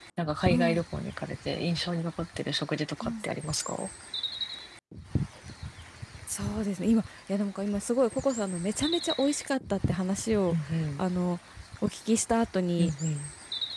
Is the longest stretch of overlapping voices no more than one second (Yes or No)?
Yes